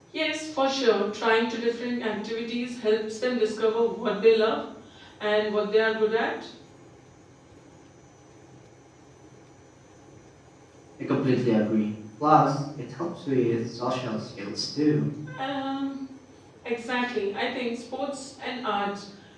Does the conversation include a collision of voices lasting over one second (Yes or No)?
No